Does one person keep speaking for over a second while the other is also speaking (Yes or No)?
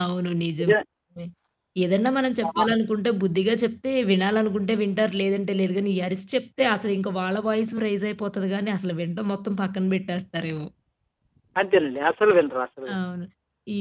No